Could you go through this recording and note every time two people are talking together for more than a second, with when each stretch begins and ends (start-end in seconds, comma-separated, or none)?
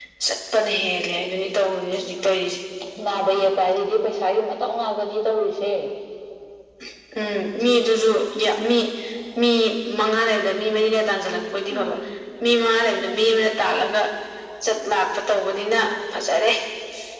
none